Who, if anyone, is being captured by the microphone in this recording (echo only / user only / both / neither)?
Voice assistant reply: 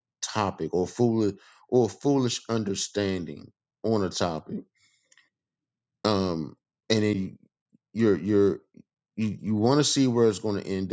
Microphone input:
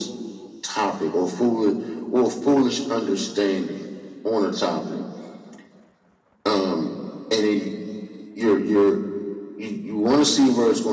echo only